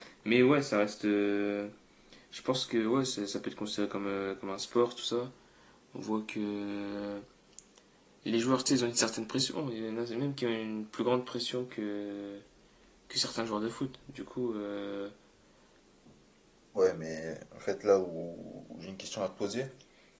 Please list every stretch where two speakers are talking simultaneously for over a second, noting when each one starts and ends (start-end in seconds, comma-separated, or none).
none